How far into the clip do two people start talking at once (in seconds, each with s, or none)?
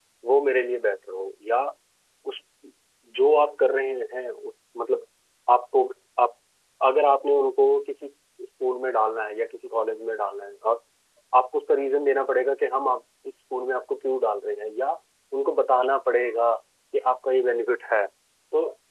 none